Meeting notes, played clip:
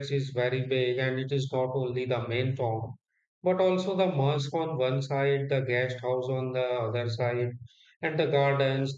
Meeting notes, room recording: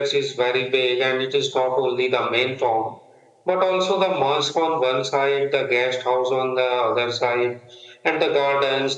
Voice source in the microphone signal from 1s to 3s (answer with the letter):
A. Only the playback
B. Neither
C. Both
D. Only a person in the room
A